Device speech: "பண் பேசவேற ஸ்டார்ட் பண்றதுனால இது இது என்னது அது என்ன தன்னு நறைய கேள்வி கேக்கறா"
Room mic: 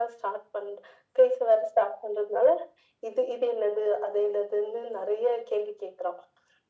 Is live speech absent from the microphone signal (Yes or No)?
Yes